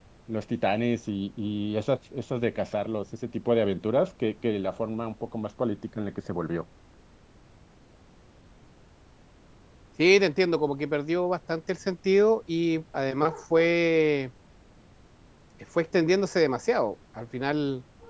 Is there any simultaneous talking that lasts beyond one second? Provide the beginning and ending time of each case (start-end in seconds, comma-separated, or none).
none